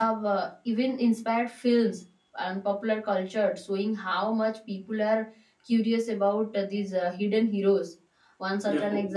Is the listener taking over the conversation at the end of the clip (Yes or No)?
No